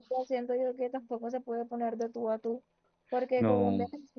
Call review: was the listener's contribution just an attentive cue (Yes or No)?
Yes